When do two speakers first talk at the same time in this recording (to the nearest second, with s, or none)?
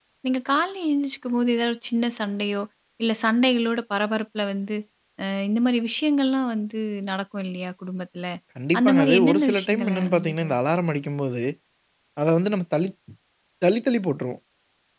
9 s